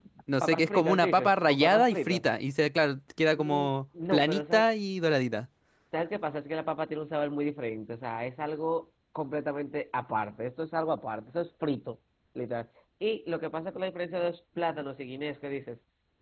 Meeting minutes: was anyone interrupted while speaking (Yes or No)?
Yes